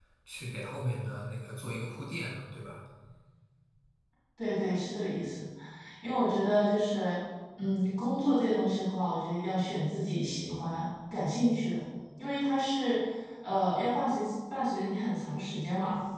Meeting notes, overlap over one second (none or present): none